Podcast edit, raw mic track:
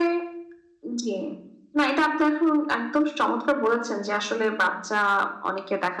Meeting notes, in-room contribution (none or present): none